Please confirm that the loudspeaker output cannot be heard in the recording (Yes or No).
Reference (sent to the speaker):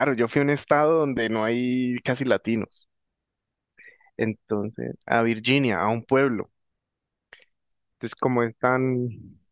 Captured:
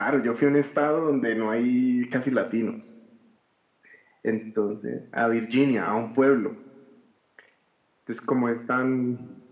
No